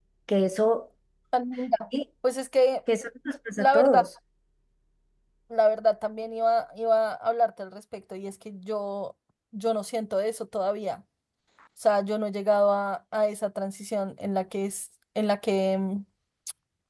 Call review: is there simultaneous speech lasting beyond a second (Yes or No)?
No